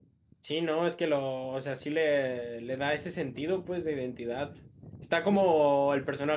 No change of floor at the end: Yes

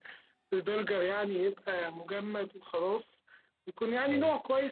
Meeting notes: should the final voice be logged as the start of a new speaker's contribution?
No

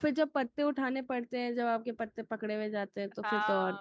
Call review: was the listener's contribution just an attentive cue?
No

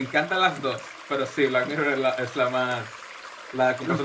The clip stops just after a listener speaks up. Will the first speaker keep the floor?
No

